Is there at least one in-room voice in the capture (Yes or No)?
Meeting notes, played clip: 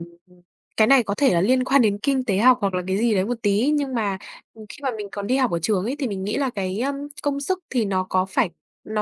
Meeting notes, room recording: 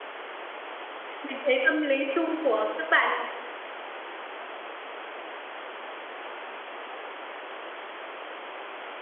Yes